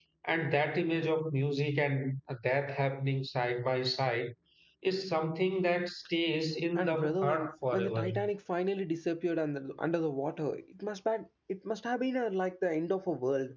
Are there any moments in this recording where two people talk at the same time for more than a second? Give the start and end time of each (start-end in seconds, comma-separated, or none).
6.8-8.1